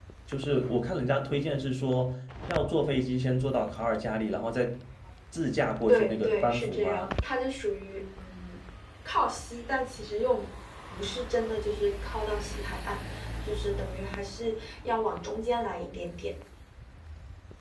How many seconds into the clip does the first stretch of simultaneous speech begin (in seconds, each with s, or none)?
5.9 s